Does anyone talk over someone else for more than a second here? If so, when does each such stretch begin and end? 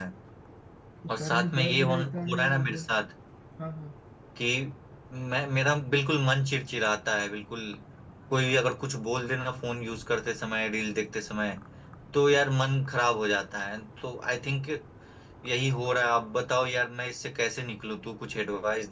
1.1-2.9

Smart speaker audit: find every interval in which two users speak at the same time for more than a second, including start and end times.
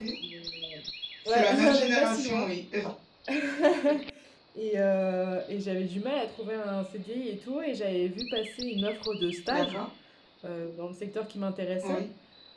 1.3-2.5

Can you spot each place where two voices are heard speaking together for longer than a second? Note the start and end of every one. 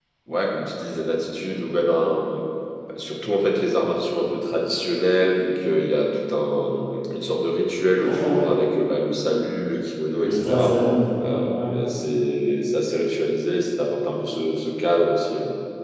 none

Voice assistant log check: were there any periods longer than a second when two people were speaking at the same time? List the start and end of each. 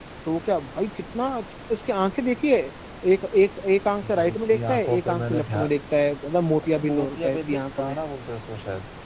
3.9-5.7, 6.7-8.0

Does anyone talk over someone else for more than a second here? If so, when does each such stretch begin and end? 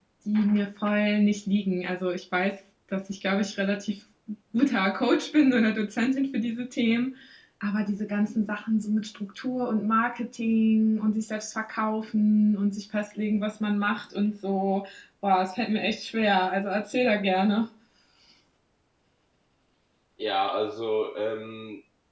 none

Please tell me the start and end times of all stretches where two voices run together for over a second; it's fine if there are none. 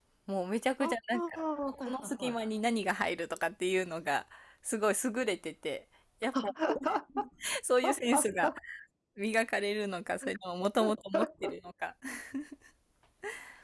0.8-2.3

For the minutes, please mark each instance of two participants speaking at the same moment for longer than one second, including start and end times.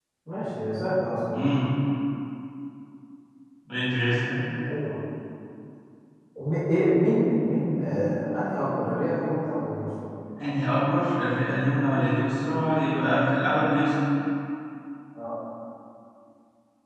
none

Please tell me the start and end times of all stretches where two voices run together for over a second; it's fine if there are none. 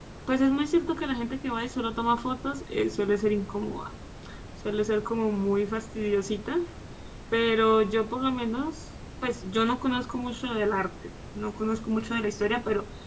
none

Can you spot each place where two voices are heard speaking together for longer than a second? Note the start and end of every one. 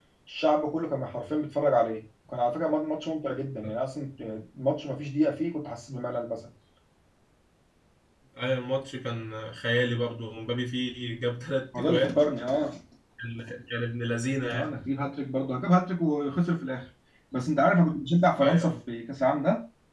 none

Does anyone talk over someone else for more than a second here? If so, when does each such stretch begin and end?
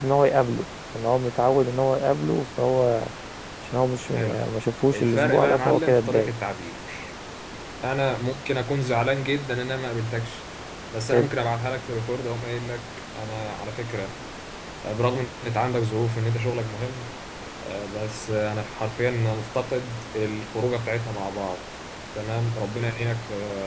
4.9-6.3

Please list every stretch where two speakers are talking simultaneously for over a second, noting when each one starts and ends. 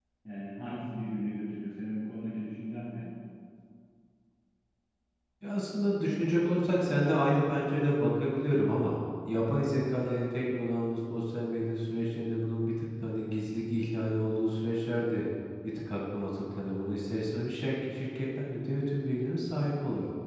none

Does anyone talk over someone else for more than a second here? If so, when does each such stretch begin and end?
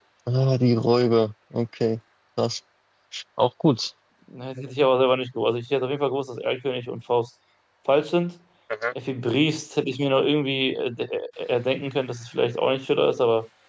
none

